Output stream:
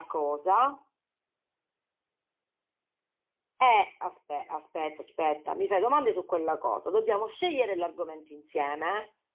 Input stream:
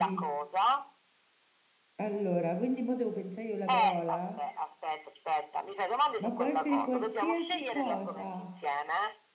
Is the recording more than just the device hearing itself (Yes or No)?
Yes